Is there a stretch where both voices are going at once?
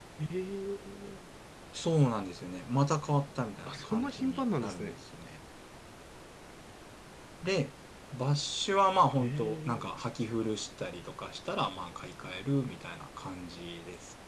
Yes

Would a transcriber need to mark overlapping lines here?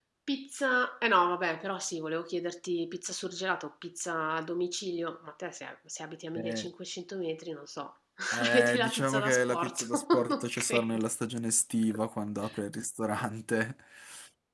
Yes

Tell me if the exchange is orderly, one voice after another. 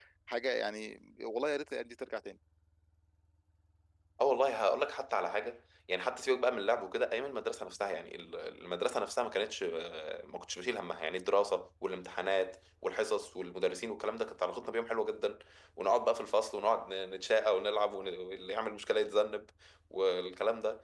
Yes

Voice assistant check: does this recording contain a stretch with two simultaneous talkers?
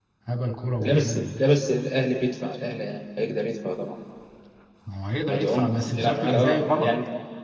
Yes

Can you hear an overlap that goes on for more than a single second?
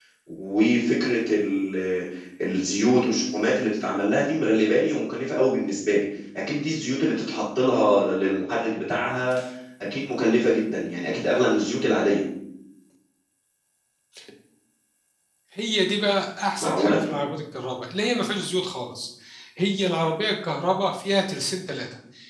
No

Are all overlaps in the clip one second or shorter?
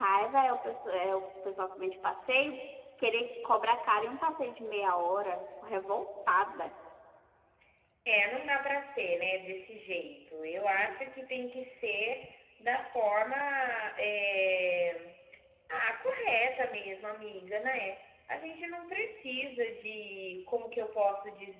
Yes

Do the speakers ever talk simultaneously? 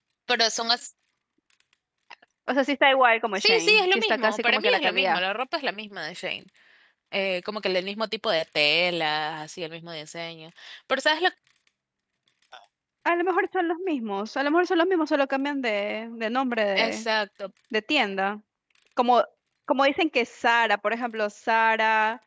Yes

